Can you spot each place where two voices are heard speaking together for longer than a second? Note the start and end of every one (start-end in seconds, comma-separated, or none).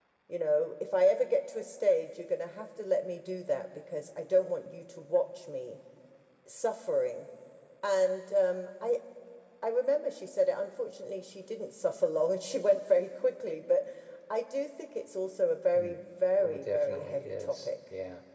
16.4-17.7